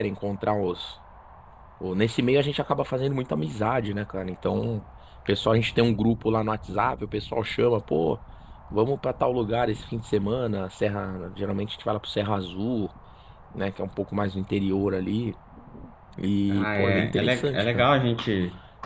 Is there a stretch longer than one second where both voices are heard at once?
Yes, from 16.5 s

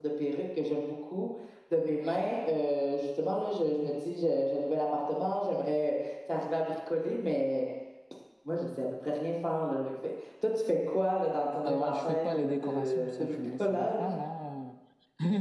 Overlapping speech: Yes, from 11.6 s

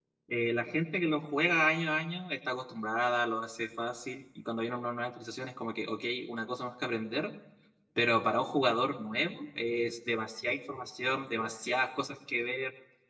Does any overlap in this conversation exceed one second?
No

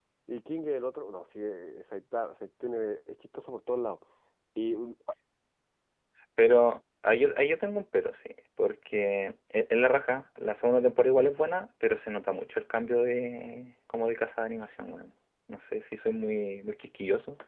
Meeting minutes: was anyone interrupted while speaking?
No

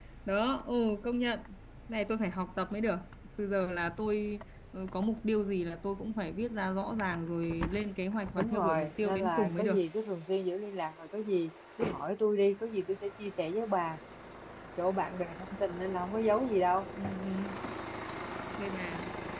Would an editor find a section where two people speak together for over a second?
Yes, from 8.4 s

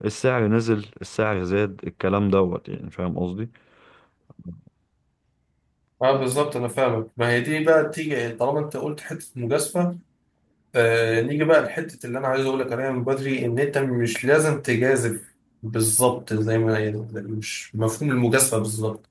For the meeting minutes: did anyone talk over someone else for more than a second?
No

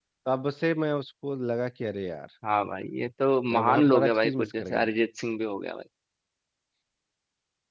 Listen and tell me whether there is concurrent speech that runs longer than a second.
Yes, from 3.5 s

